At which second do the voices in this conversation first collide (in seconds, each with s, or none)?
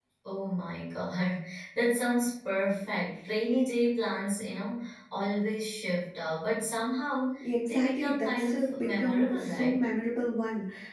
7.4 s